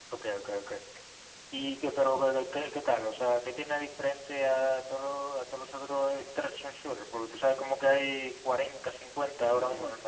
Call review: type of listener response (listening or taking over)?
taking over